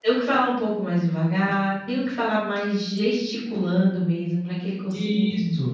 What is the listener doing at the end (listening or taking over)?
taking over